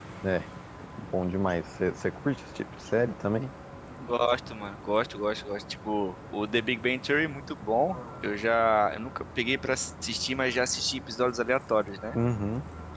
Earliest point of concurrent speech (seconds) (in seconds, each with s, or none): none